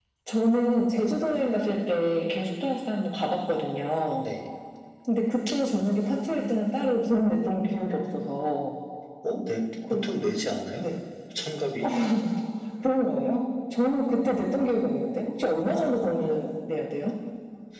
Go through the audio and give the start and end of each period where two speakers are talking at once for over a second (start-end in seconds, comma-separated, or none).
none